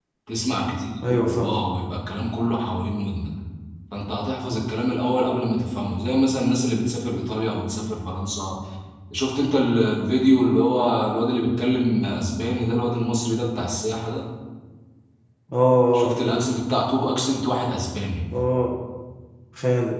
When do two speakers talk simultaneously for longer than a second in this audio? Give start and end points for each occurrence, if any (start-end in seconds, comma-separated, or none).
none